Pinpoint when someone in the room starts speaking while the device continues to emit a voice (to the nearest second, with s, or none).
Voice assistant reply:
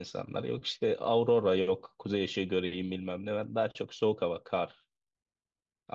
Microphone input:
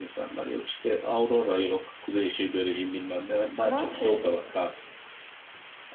4 s